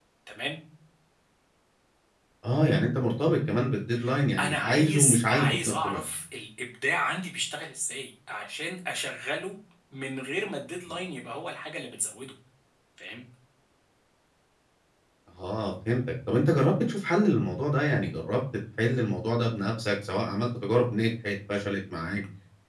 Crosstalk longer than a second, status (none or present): present